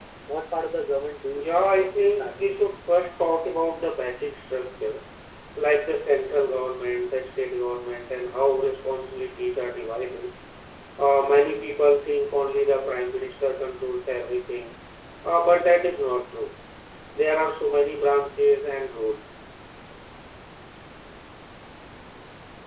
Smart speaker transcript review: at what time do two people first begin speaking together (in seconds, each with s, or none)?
1.3 s